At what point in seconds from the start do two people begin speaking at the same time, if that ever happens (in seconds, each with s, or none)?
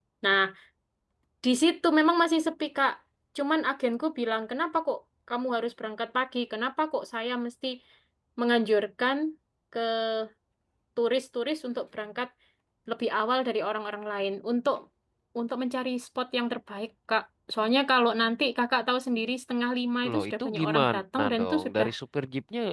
20.0 s